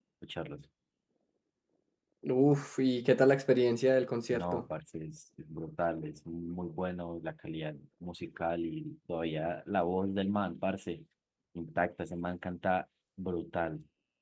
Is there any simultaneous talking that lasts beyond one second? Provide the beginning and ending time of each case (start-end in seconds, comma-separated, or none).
none